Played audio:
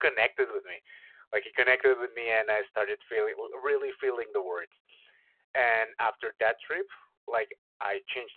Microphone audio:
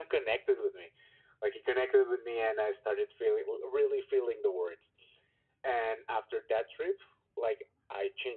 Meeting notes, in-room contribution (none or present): none